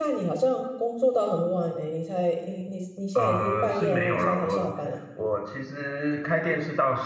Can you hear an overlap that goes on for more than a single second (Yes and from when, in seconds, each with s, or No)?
Yes, from 3.1 s